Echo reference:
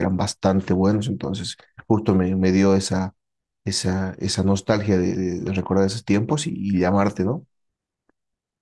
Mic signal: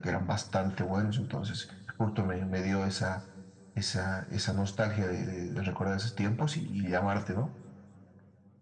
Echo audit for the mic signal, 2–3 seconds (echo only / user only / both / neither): echo only